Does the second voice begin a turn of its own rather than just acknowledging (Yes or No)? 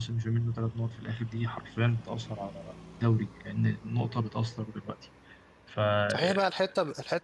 Yes